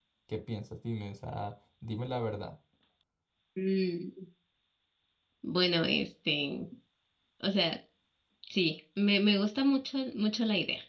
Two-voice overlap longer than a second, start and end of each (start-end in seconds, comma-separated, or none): none